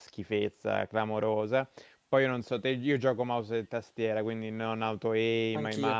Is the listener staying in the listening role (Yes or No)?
Yes